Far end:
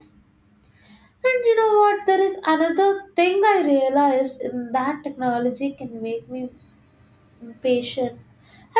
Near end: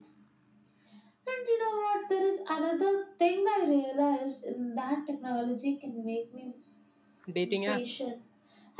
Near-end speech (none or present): present